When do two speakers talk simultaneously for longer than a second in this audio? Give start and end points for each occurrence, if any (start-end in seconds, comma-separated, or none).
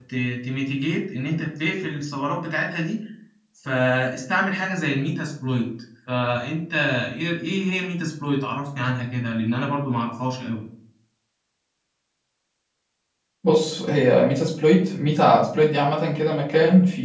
none